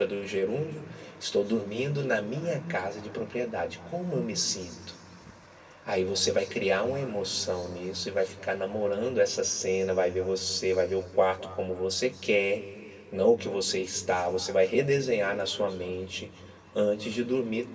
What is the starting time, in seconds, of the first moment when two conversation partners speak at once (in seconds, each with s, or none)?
none